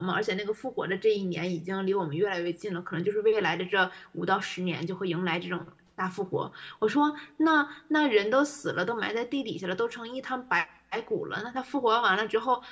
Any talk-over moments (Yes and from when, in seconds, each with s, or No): No